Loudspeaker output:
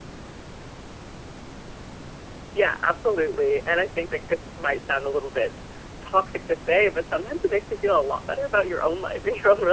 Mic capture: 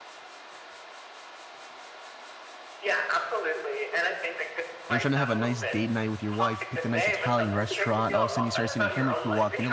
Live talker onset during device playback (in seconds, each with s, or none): 4.9 s